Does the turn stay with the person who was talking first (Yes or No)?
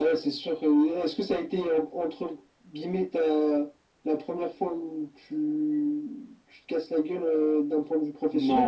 No